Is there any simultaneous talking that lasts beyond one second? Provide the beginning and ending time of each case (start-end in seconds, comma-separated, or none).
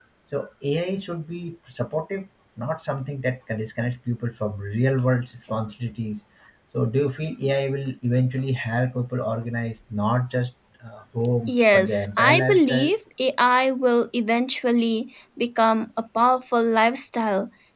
11.5-12.9